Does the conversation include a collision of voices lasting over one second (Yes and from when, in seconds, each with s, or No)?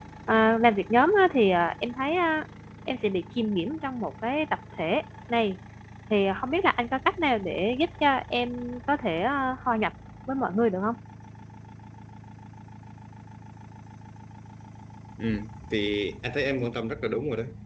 No